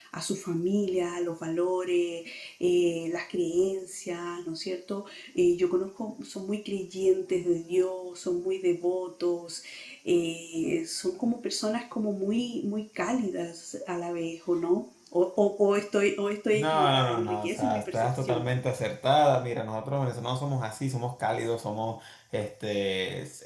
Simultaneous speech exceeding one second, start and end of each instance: 16.5-18.4

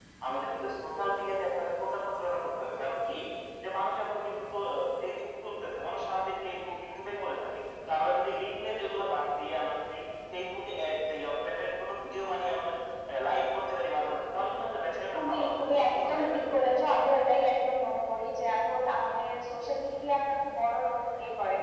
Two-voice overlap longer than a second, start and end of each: 15.1-16.6

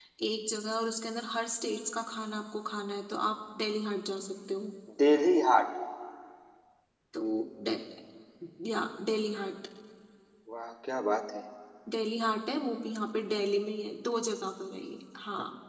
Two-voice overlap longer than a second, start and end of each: none

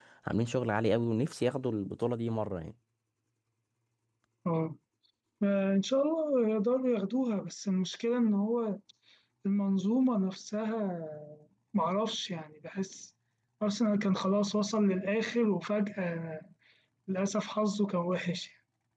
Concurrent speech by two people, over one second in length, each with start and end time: none

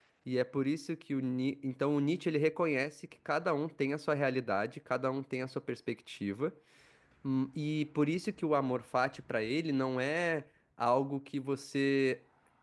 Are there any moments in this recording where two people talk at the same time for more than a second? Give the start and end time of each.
none

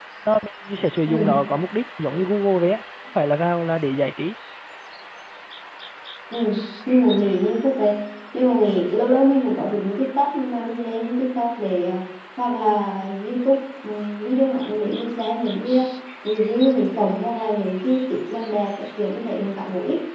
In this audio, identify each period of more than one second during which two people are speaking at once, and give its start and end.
none

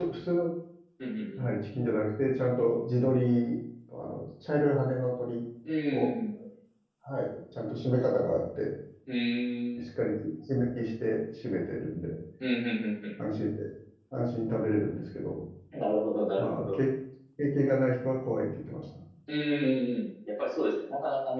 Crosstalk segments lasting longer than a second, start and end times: none

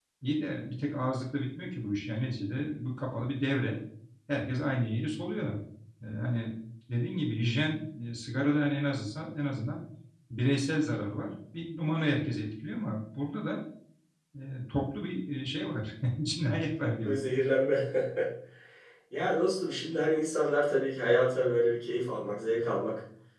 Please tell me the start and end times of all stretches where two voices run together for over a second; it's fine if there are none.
none

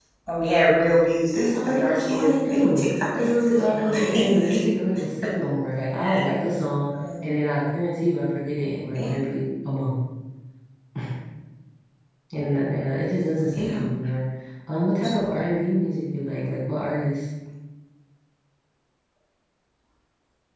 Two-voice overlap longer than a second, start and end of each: 1.3-4.6

